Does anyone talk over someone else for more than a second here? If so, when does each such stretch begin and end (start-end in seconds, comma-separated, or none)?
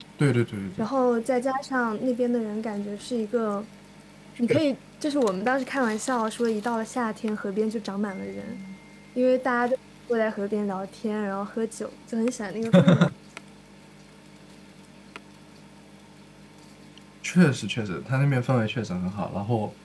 none